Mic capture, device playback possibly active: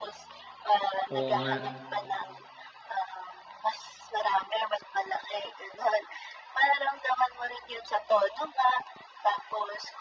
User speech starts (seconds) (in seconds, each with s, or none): 1.1 s